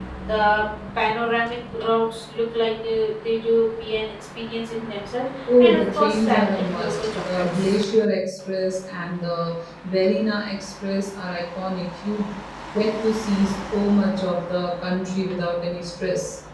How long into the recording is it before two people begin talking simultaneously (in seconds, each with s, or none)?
5.5 s